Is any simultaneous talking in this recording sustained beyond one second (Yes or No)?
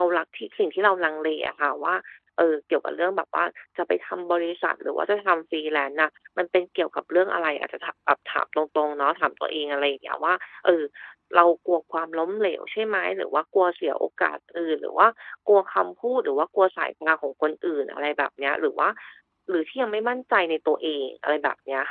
No